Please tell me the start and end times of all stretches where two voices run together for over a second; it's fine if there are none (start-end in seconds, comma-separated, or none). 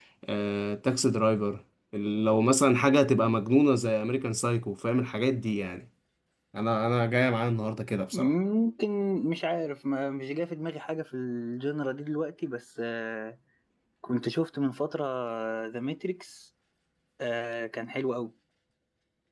none